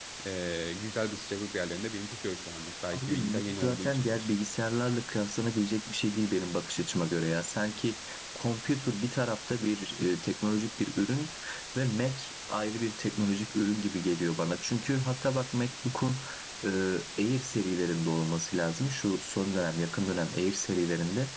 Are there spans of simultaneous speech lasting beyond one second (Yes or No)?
Yes